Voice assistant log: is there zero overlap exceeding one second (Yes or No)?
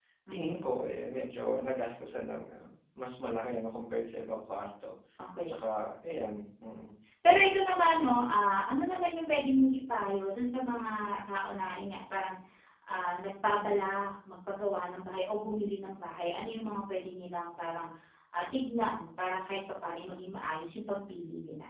Yes